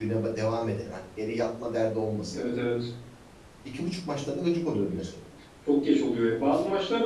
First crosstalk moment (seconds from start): none

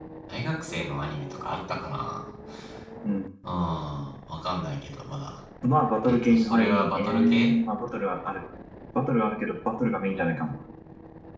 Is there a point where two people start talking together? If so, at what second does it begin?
6 s

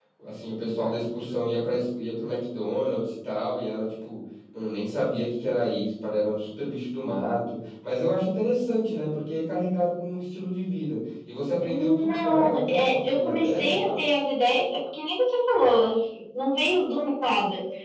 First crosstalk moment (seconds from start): 12 s

